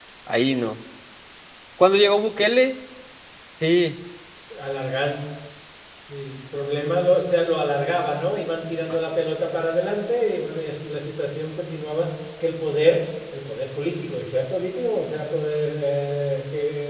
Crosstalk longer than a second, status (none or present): none